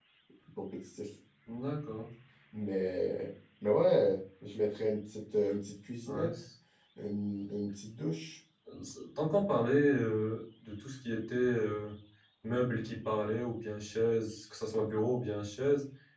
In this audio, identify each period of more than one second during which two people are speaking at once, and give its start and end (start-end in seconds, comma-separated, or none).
none